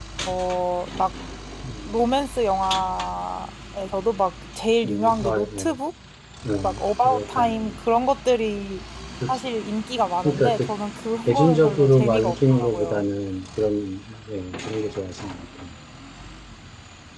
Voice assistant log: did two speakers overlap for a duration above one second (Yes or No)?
Yes